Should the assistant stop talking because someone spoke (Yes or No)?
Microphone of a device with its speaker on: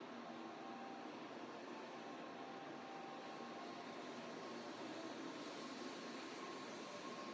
No